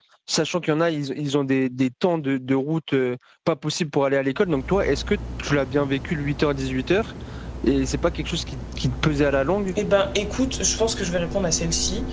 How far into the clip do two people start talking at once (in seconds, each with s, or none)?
none